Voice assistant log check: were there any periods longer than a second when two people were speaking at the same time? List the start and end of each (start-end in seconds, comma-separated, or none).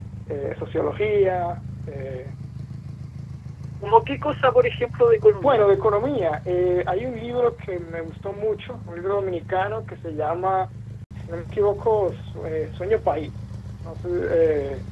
none